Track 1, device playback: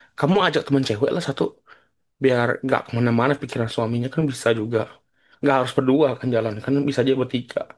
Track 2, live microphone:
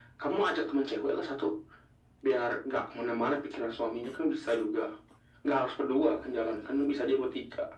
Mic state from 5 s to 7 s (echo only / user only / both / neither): echo only